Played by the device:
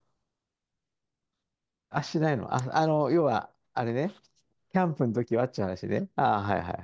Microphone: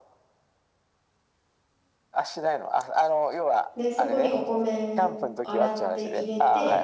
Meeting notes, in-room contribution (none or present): present